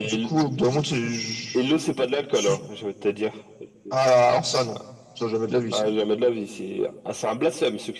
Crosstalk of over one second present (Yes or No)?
No